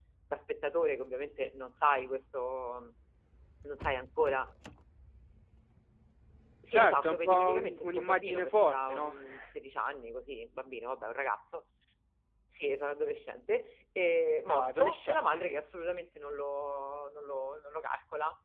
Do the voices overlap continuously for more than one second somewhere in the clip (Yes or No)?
Yes